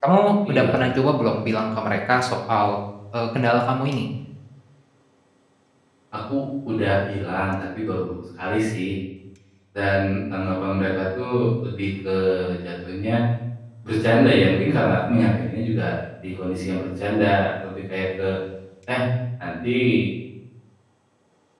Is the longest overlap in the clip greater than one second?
No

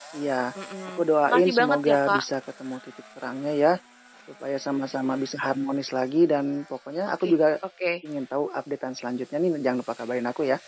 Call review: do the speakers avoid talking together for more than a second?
No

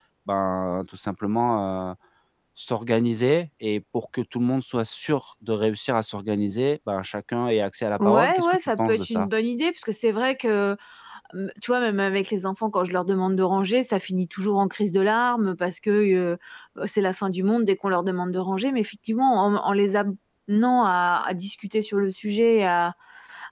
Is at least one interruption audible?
Yes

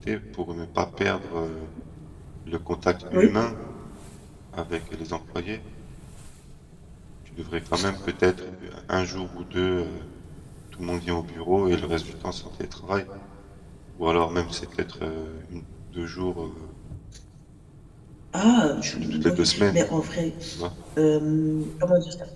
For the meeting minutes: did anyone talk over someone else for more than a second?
Yes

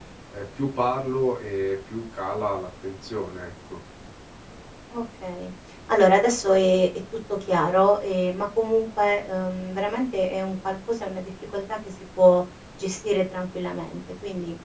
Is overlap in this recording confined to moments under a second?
Yes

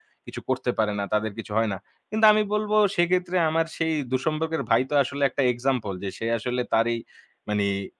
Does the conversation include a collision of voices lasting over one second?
No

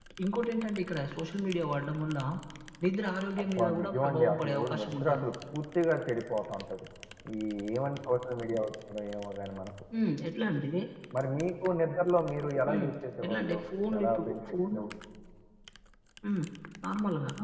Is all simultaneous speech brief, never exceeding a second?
No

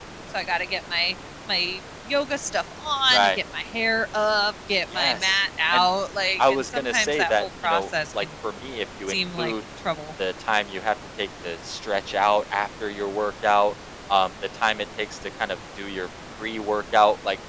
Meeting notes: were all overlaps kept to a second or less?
No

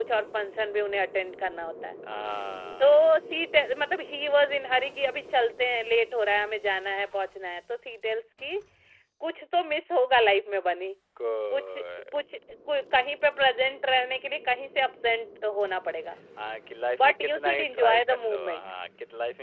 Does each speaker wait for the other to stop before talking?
No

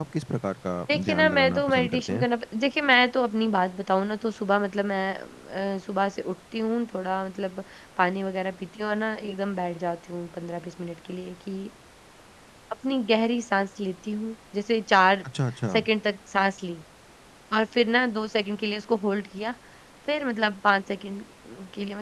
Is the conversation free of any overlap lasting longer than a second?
No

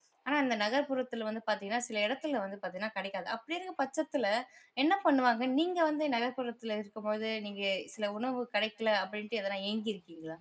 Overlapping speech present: No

